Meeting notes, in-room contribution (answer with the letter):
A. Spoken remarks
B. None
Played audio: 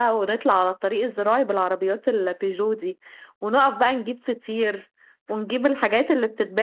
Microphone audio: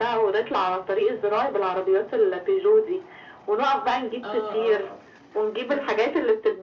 A